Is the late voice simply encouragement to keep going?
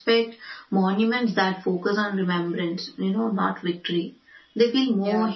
Yes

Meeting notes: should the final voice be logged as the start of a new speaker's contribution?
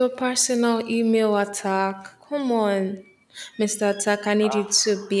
No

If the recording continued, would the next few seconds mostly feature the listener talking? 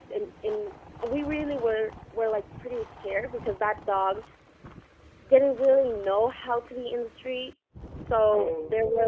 No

